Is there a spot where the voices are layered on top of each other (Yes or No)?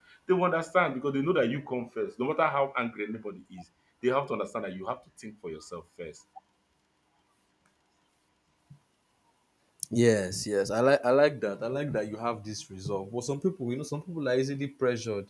No